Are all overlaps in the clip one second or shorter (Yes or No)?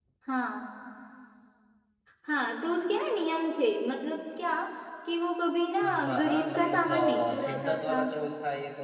No